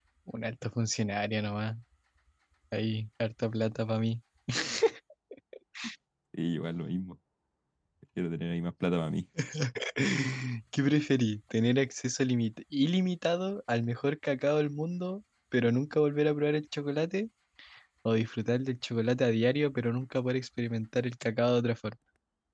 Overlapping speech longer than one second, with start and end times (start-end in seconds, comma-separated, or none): none